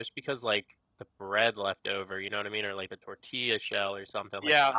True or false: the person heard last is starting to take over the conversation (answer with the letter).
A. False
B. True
B